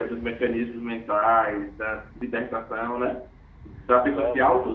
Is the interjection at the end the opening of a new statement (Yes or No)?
No